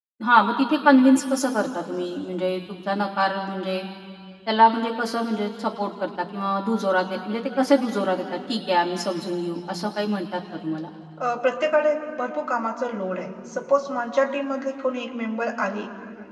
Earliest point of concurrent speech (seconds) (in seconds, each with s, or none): none